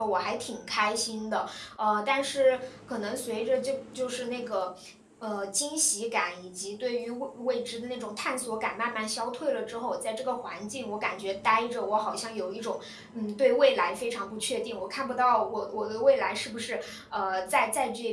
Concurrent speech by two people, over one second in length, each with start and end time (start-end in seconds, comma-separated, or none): none